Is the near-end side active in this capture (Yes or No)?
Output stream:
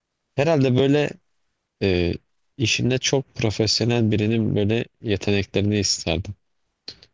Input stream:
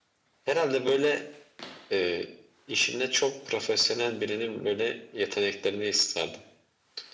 No